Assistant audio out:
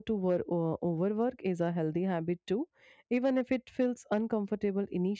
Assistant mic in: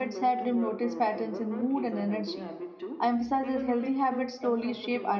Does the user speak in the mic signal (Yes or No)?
Yes